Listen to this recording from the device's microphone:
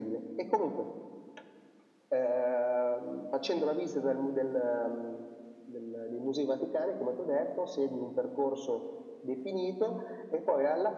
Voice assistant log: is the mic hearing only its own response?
Yes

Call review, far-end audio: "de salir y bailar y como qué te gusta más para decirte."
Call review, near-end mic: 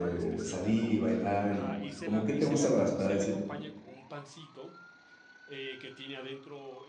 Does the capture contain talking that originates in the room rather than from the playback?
Yes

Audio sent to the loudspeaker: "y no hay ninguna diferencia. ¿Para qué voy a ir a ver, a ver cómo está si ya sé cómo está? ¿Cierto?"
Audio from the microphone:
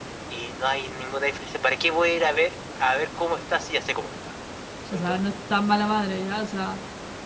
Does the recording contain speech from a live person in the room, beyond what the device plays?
Yes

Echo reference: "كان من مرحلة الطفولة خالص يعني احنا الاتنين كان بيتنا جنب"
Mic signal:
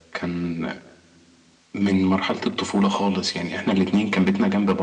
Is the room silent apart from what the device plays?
Yes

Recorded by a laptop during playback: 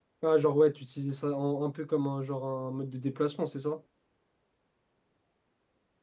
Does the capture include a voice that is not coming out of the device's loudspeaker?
Yes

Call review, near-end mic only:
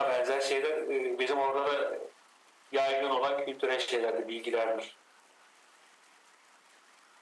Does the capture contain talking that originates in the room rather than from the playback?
No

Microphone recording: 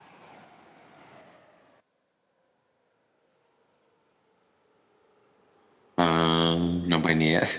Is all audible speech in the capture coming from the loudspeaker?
No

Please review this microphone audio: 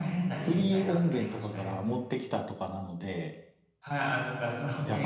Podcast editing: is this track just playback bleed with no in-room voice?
No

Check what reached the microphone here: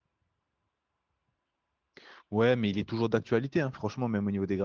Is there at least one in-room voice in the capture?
Yes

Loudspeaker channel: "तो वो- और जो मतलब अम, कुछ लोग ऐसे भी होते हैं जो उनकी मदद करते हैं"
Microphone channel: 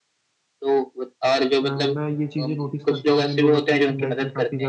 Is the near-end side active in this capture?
Yes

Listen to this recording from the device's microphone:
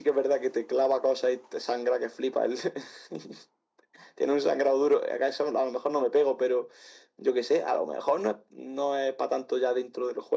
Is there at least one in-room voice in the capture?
No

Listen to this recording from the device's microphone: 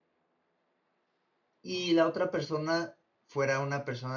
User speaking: Yes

